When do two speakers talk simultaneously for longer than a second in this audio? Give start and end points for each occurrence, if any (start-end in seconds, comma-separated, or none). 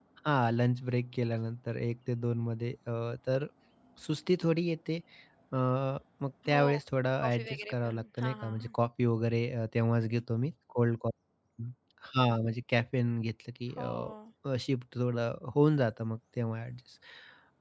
7.2-8.7